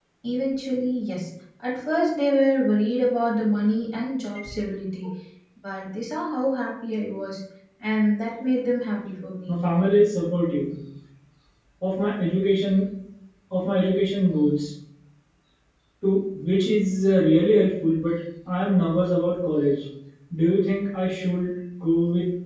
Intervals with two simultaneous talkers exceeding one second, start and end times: none

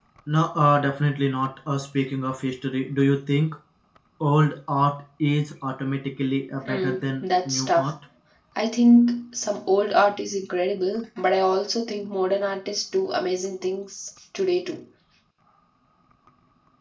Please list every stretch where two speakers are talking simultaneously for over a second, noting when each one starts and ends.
6.7-7.9

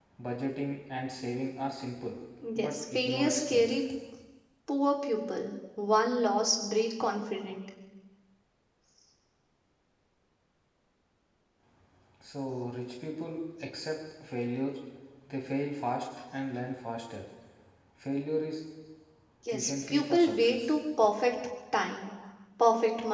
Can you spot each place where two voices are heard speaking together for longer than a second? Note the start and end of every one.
2.5-3.8, 19.5-20.8

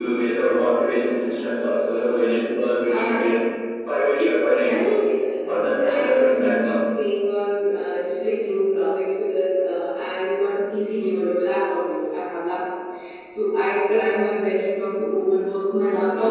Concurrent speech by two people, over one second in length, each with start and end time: 5.5-6.7

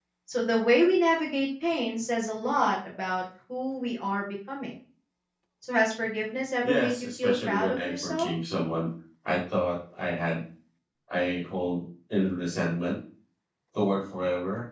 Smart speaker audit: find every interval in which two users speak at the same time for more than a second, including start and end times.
6.6-8.3

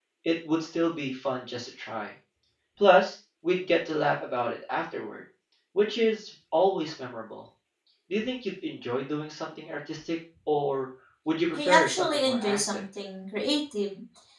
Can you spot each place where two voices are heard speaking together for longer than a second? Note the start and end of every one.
11.5-12.8

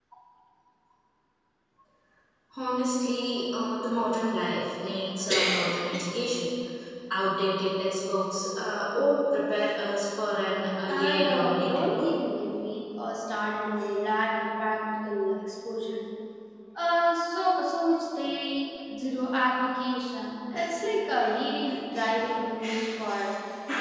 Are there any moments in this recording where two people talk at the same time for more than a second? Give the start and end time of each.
10.9-12.2

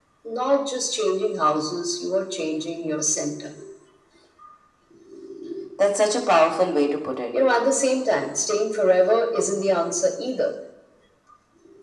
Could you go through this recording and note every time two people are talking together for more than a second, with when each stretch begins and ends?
none

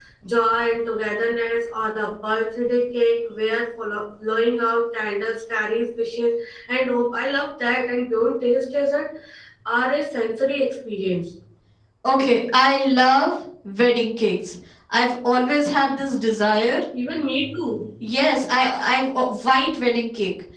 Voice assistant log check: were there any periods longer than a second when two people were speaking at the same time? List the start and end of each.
none

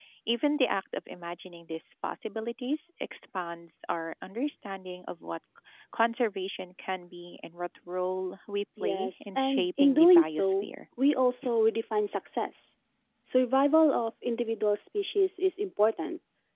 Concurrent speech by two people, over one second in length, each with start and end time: 8.8-10.7

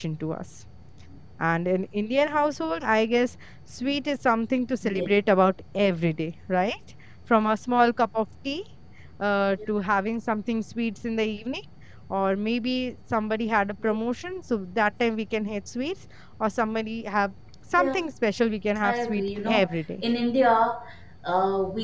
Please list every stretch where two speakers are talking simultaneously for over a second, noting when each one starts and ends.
18.8-20.0

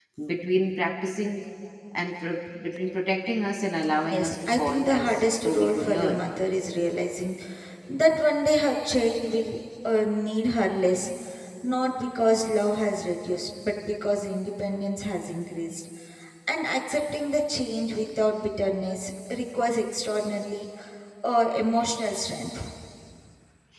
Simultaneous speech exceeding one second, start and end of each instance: 4.1-6.3

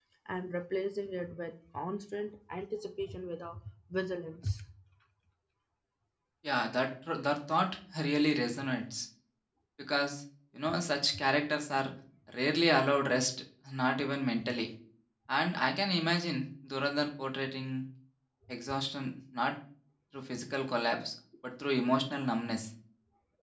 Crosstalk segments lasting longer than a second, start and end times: none

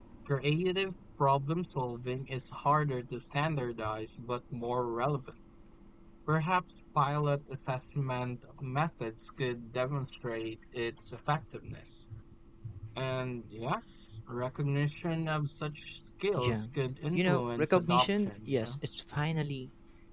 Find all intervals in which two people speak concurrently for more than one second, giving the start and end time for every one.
17.1-18.7

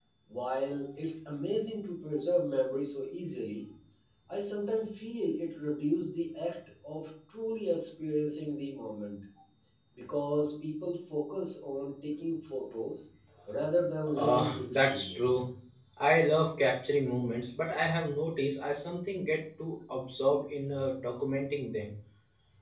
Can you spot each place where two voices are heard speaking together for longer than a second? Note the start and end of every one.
14.2-15.4

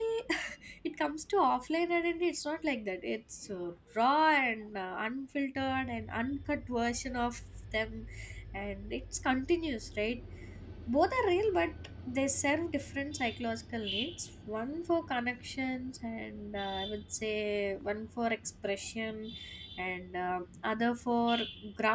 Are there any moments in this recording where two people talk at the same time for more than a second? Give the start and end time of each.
none

